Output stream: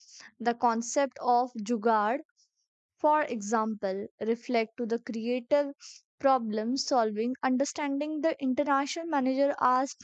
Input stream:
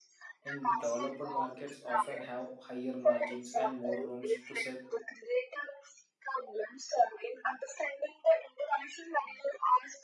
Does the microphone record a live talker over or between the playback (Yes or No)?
Yes